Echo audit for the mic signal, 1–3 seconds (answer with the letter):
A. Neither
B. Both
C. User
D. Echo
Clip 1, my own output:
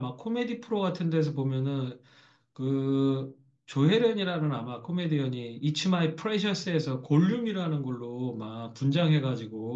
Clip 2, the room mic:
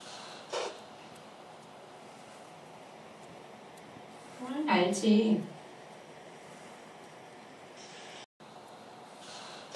A